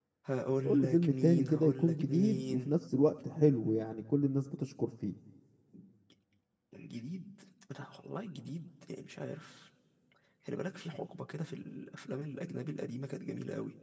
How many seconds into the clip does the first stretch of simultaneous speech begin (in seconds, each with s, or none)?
0.6 s